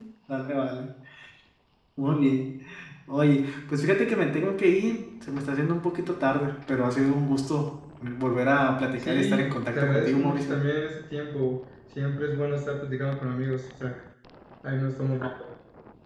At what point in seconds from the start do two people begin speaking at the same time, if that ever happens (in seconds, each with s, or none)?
9.0 s